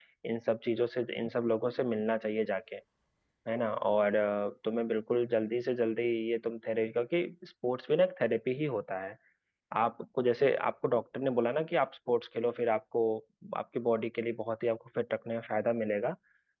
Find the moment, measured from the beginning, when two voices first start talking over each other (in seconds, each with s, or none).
none